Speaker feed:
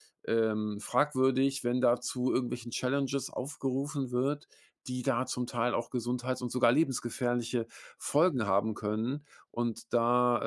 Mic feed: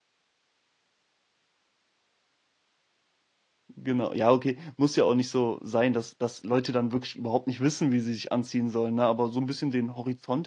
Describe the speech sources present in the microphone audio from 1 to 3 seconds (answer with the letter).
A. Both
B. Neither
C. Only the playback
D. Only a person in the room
B